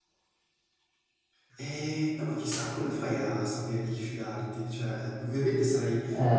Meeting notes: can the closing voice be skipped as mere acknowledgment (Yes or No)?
Yes